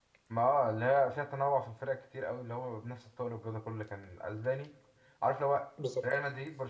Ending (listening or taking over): listening